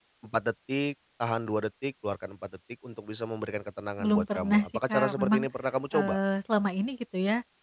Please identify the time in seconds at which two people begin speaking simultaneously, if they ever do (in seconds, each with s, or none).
4.0 s